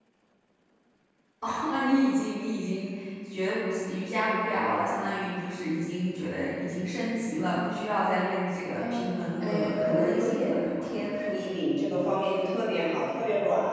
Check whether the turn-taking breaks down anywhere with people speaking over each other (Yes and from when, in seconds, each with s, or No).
Yes, from 8.8 s